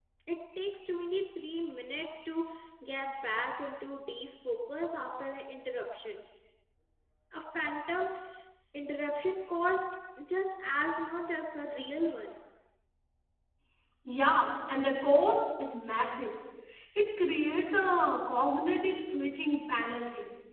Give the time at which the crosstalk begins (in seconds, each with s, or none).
none